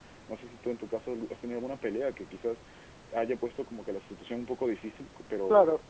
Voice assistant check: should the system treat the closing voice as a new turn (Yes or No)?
Yes